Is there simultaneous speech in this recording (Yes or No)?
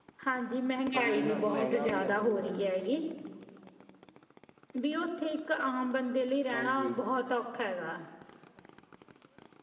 Yes